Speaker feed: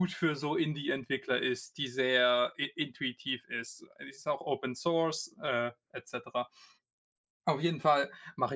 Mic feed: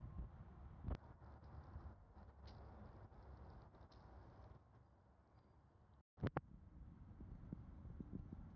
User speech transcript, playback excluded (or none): none